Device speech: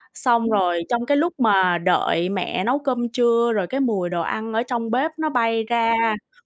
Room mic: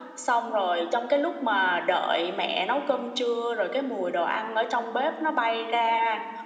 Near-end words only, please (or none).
none